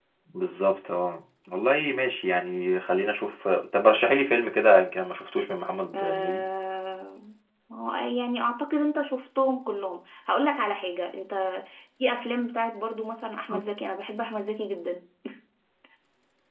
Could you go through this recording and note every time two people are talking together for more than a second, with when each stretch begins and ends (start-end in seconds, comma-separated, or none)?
none